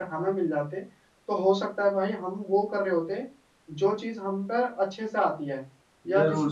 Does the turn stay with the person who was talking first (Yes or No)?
No